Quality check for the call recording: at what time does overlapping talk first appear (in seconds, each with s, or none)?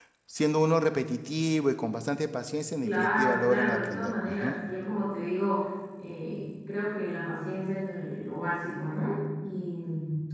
2.8 s